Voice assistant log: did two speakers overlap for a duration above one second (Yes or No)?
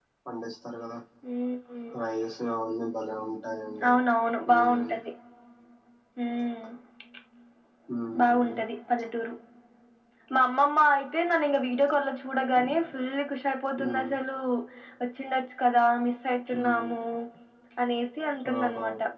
No